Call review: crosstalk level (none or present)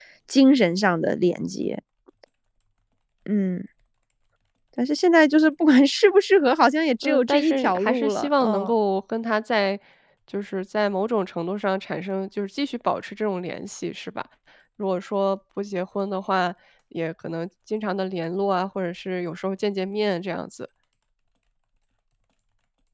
present